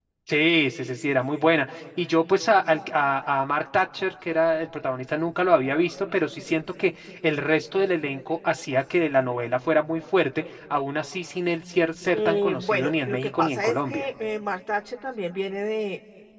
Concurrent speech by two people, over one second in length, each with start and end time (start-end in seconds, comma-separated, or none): 12.1-14.1